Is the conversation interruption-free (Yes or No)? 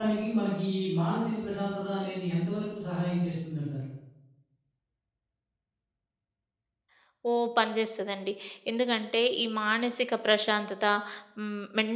Yes